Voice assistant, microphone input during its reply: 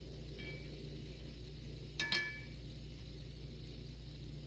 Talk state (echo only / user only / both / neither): neither